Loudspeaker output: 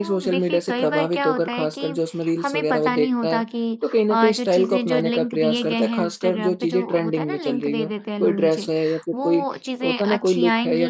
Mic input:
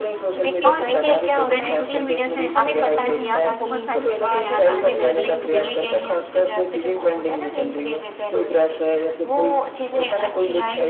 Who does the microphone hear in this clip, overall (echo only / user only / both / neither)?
both